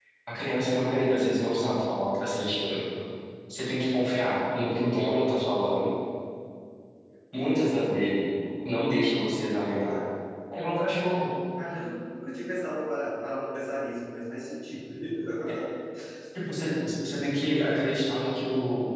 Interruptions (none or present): none